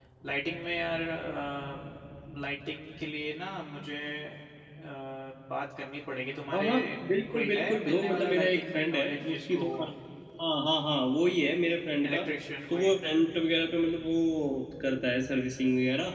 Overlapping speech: Yes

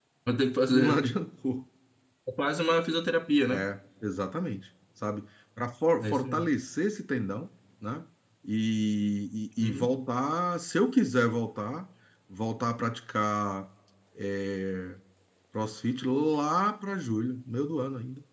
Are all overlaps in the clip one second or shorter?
Yes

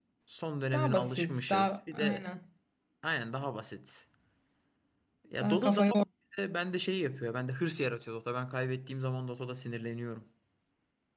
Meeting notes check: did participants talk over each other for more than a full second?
Yes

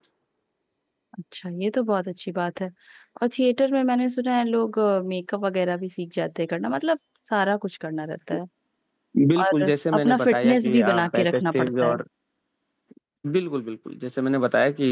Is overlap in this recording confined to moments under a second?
No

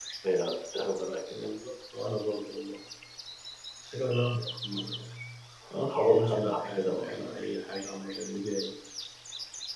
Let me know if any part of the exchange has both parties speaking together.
Yes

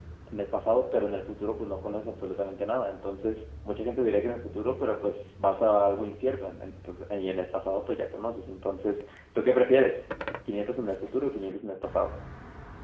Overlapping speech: No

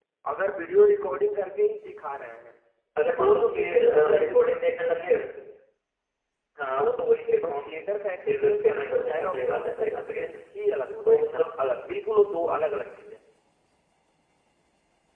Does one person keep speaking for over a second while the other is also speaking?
Yes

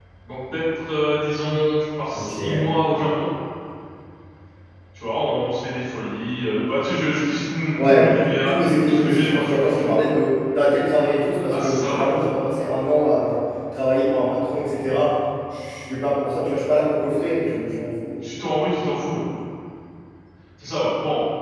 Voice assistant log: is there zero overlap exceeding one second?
No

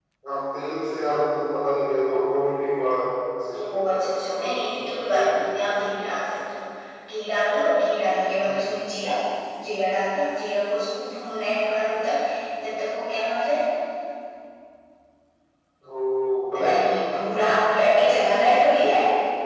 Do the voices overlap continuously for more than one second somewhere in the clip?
Yes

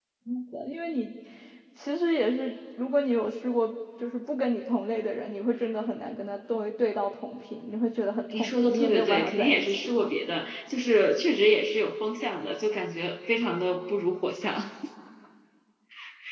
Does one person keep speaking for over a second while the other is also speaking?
Yes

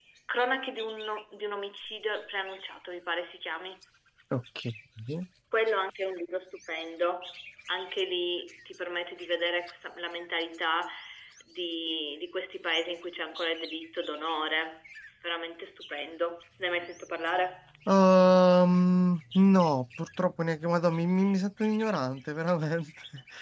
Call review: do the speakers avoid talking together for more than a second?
Yes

